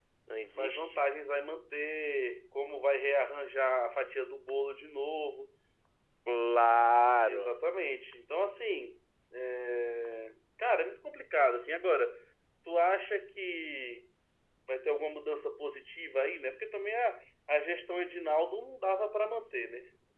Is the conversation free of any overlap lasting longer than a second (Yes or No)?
Yes